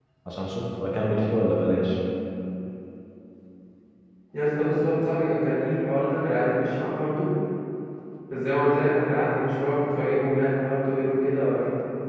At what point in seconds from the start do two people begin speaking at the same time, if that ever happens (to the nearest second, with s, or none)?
none